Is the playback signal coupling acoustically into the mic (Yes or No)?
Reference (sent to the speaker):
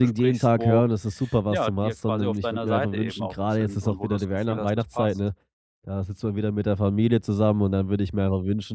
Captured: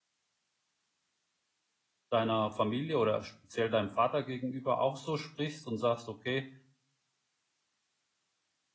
No